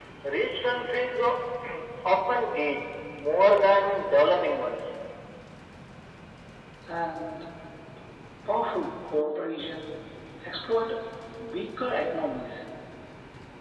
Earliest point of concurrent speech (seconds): none

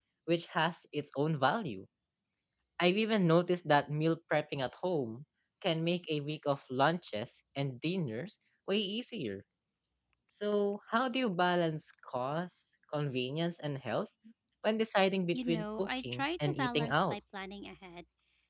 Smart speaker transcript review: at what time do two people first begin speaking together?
15 s

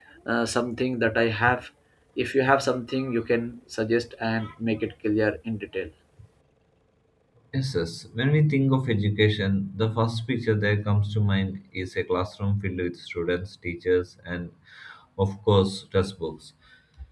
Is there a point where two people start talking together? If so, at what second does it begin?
none

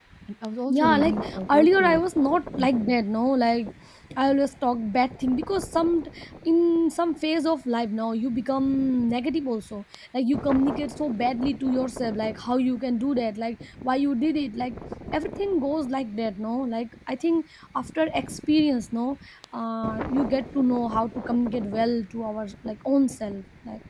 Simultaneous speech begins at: 1 s

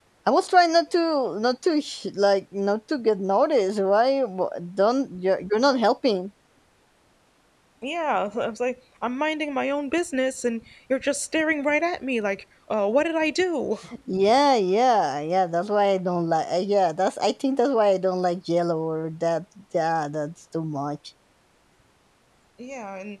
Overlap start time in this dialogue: none

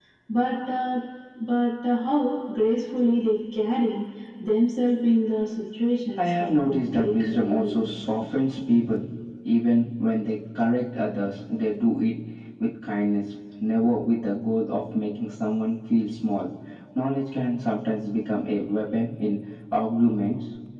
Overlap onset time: 6 s

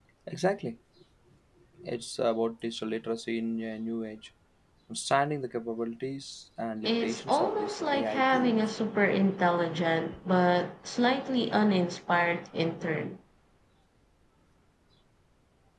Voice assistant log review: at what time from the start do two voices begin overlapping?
7 s

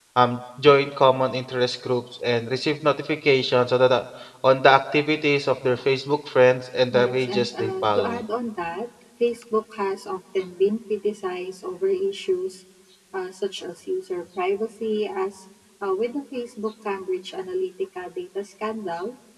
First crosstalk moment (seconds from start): 7 s

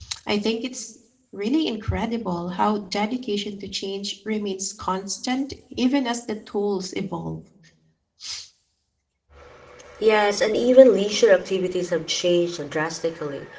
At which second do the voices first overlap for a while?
none

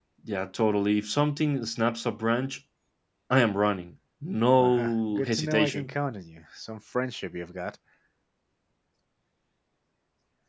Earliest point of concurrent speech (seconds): 5 s

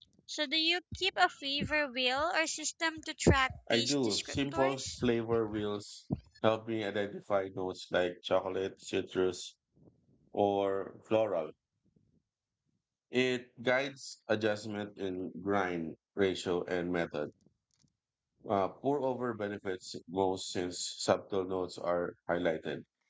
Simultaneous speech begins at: 4 s

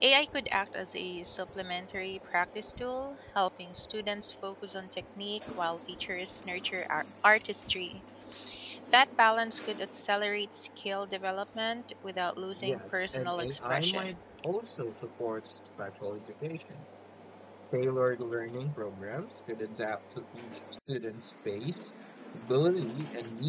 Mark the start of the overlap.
13 s

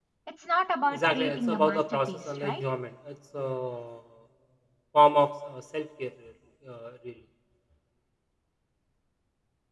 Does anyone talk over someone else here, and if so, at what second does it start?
1 s

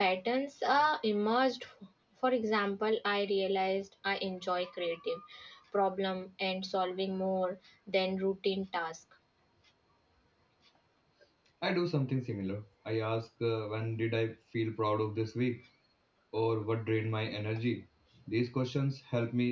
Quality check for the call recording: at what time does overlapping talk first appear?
none

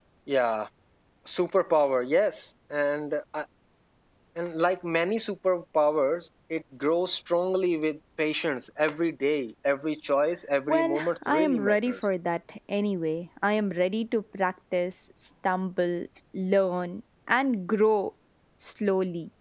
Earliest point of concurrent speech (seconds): 11 s

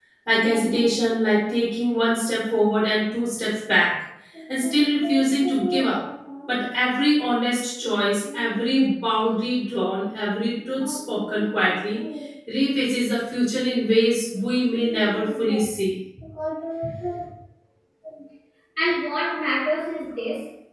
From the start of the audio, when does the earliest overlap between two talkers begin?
none

